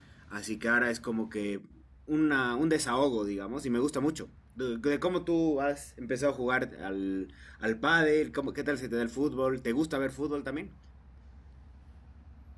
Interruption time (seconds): none

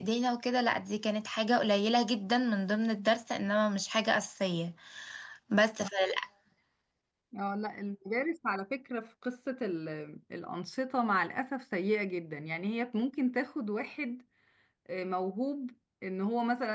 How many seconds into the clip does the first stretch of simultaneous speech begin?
none

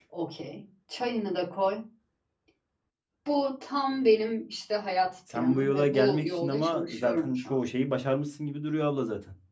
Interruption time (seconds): 5.3 s

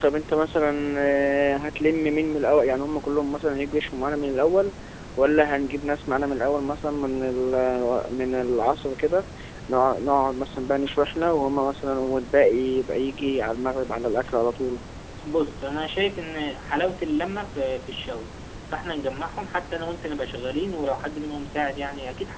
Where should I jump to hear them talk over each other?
none

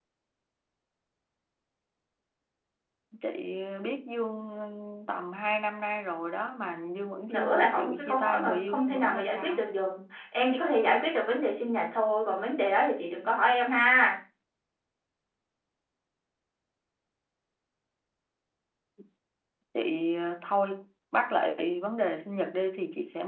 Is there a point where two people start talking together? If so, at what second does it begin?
7.3 s

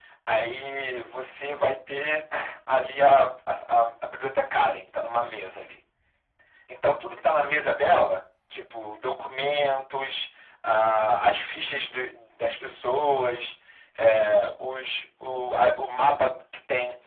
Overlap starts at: none

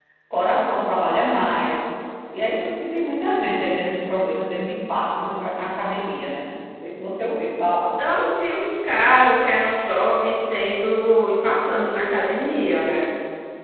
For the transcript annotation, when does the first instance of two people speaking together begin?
none

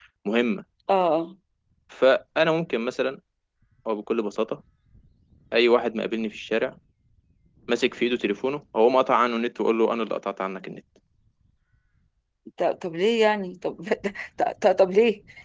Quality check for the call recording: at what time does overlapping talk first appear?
none

